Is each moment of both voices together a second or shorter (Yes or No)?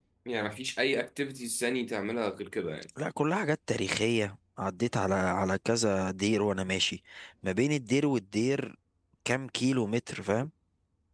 Yes